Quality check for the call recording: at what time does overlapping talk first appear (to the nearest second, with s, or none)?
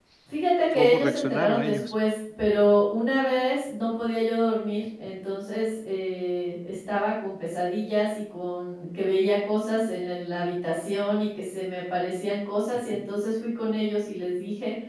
1 s